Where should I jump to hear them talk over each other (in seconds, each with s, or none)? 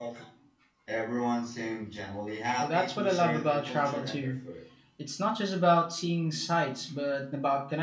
2.6 s